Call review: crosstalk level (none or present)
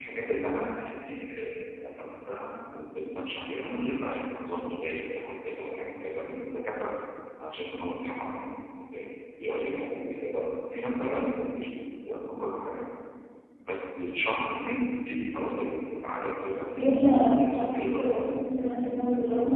present